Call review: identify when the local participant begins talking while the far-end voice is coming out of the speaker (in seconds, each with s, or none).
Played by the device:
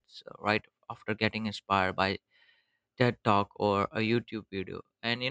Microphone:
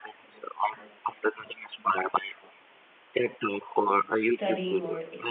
4.2 s